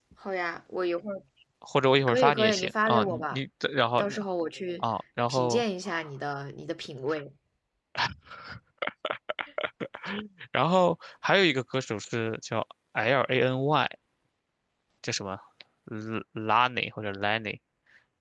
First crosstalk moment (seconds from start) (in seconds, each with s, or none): 2.1 s